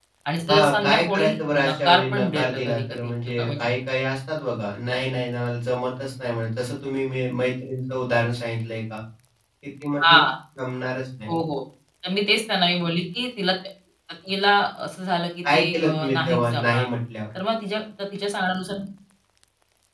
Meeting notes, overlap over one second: present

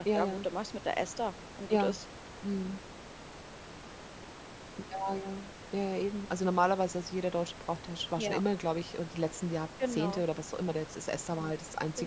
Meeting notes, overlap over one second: none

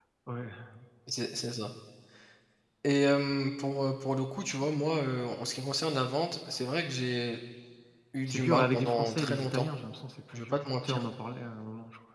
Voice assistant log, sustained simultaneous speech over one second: present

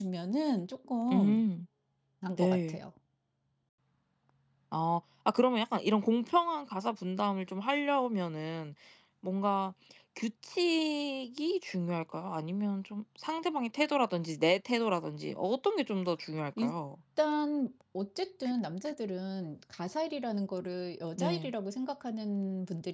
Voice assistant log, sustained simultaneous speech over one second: none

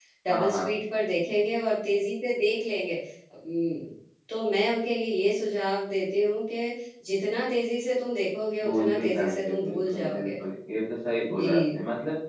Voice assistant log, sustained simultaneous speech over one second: present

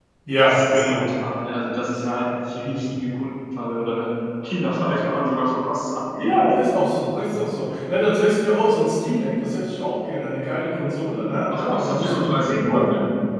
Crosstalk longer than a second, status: present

